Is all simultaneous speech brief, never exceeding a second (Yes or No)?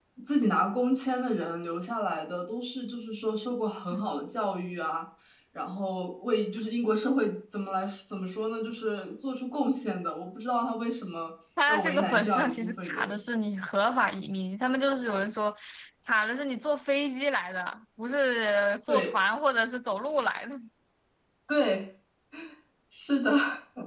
No